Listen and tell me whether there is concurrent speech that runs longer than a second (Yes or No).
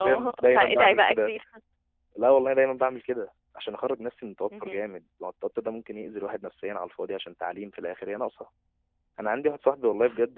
Yes